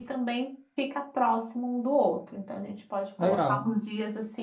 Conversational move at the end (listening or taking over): listening